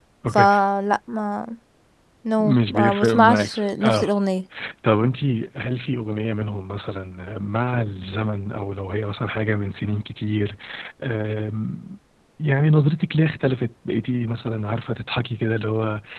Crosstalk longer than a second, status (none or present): present